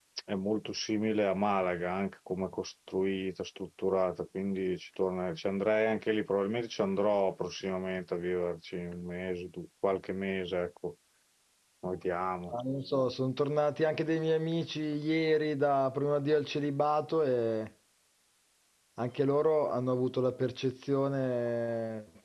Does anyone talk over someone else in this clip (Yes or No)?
No